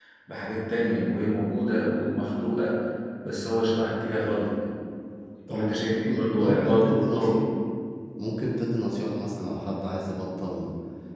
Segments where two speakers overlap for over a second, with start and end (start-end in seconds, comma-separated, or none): 5.5-7.4